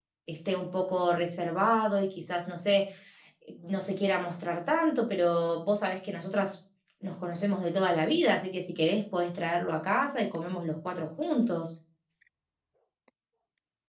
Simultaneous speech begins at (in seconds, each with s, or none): none